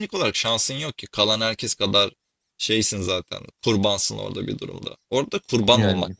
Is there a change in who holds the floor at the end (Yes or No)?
No